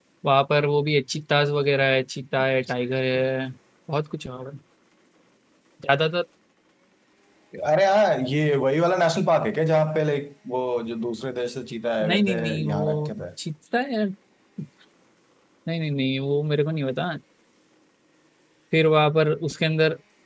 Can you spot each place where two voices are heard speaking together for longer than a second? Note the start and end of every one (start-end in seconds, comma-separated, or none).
12.0-13.2